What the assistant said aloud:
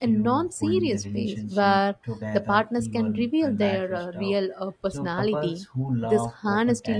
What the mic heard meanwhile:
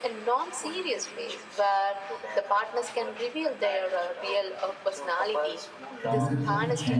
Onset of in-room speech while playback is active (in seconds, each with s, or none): 6.0 s